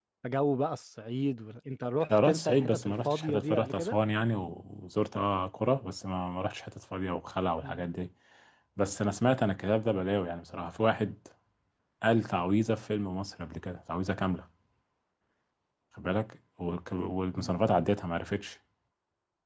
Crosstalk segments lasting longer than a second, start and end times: 2.1-4.0

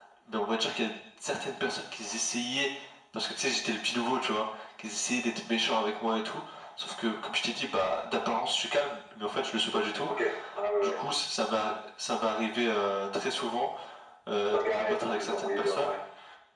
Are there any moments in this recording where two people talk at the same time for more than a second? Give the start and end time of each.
14.4-15.9

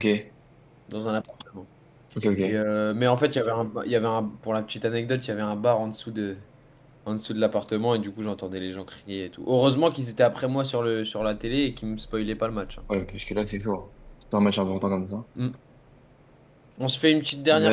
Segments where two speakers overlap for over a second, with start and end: none

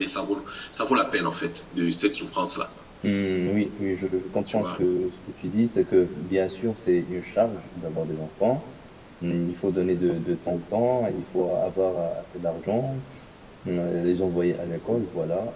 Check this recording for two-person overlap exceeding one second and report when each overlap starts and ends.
none

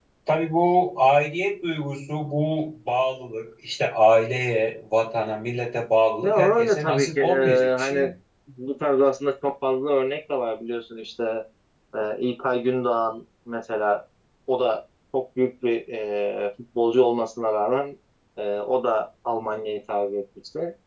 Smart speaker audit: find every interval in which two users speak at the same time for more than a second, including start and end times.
6.2-8.1

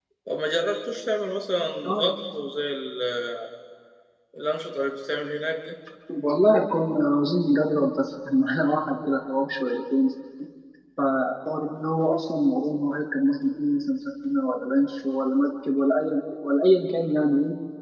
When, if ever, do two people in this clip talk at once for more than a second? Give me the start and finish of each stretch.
none

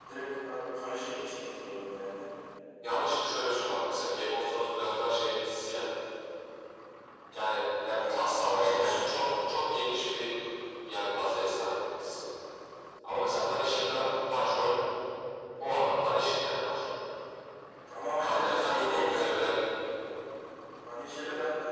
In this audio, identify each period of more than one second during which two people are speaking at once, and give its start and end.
18.2-19.4

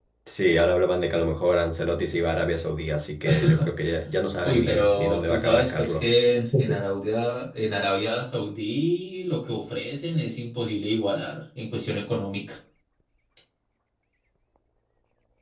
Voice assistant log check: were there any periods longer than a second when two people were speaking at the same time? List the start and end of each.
4.4-6.1

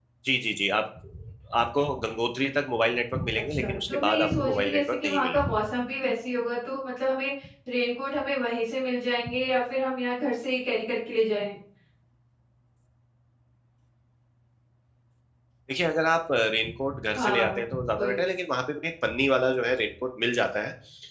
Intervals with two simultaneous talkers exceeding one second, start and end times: 3.5-5.5

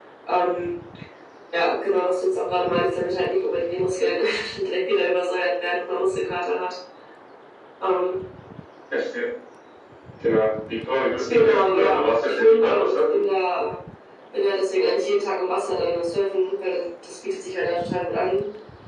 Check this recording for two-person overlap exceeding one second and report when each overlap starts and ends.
11.3-13.2

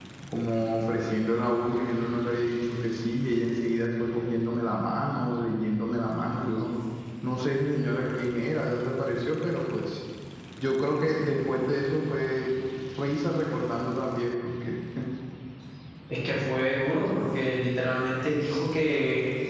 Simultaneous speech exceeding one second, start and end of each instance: none

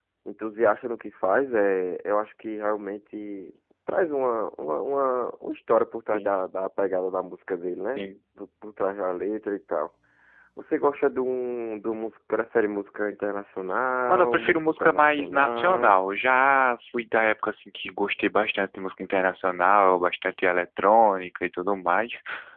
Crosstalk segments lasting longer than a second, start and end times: 14.1-16.0

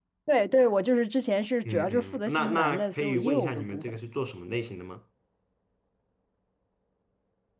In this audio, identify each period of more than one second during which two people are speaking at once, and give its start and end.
1.7-4.0

